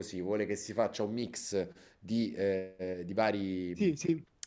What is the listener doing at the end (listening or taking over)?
listening